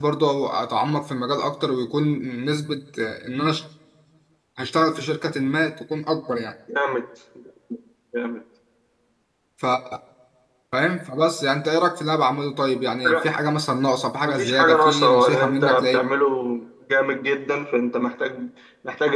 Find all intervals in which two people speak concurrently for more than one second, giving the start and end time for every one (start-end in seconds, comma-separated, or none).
14.2-16.0